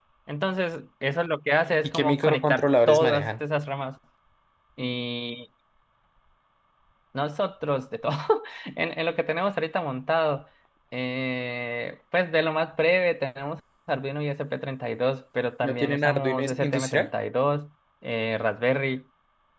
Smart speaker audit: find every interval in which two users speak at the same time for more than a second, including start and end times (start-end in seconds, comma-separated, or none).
1.8-3.4, 15.6-17.1